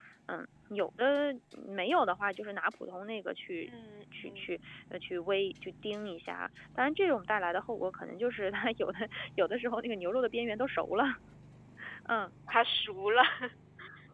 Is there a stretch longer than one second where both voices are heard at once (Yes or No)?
No